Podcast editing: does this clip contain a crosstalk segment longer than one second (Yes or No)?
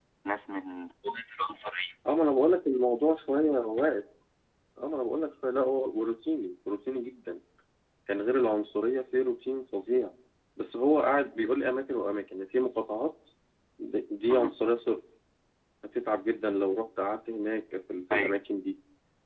No